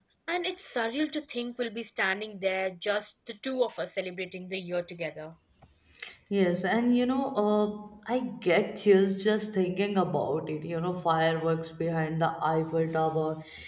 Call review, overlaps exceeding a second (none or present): none